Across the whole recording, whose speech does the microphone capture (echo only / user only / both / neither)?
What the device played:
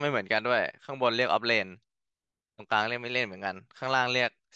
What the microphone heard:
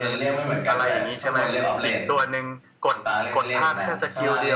both